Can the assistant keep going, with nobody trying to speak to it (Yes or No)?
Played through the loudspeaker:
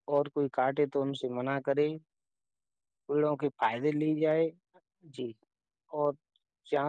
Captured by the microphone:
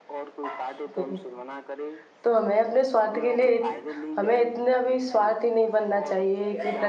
No